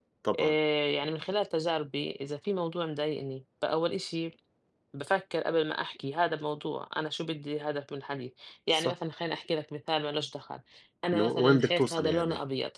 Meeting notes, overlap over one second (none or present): present